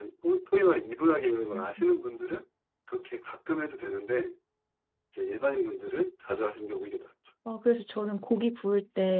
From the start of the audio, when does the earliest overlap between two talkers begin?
none

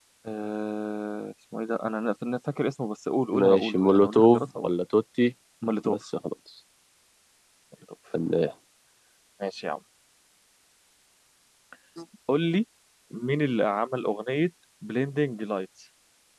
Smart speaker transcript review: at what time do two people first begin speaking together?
3 s

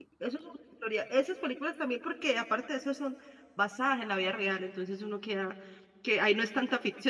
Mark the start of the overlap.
none

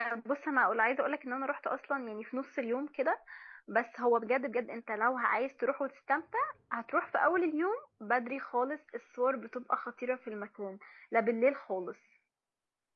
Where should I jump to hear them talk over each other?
none

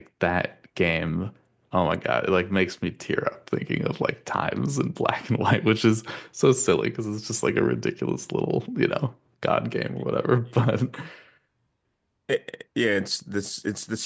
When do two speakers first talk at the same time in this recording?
none

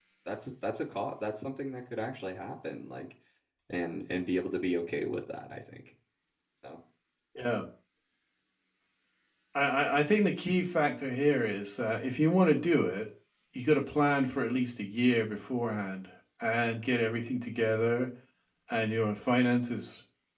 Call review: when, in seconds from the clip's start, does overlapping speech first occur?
none

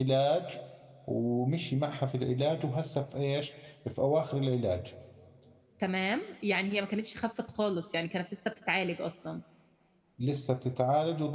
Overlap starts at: none

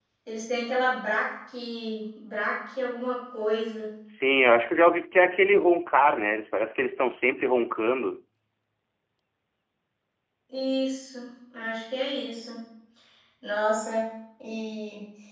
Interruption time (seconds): none

